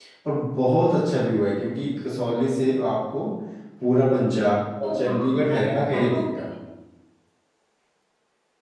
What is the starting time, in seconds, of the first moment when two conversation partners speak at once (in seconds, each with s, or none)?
4.8 s